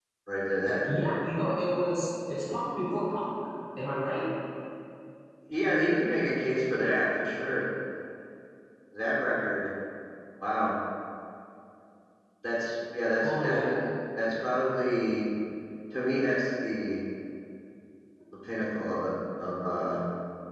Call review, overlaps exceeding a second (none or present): none